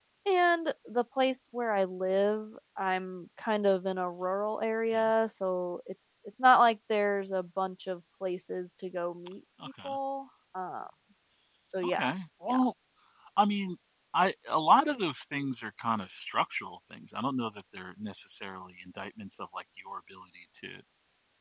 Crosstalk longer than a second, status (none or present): none